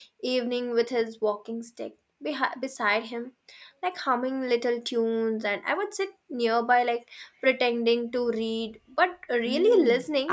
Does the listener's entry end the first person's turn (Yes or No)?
Yes